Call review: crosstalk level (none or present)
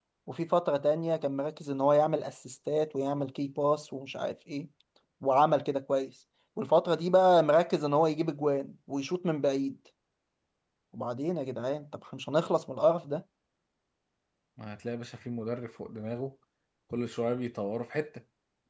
none